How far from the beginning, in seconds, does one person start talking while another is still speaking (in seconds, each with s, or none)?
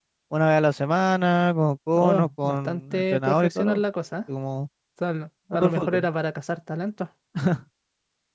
2.0 s